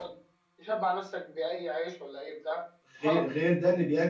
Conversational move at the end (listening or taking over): taking over